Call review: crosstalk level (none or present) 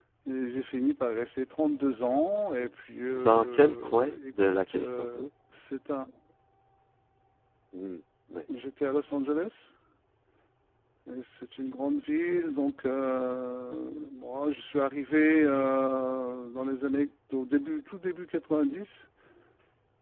present